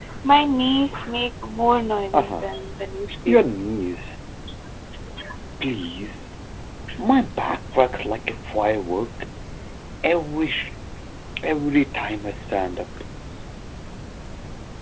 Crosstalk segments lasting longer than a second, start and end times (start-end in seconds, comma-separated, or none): none